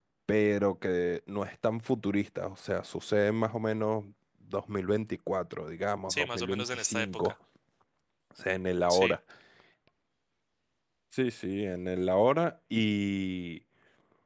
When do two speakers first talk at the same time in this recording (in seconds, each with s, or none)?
6.1 s